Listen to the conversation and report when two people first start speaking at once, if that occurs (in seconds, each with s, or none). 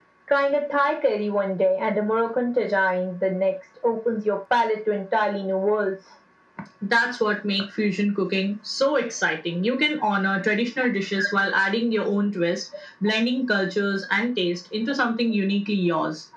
none